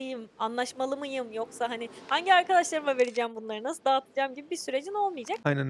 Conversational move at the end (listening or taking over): listening